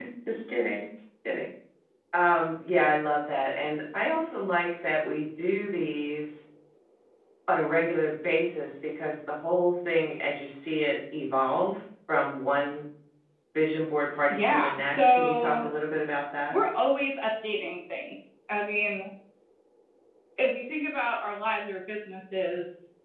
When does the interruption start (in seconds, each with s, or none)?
14.3 s